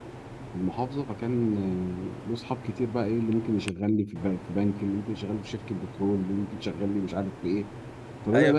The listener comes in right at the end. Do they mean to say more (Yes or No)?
Yes